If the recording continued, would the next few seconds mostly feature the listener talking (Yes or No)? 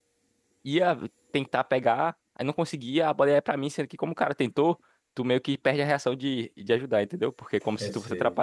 No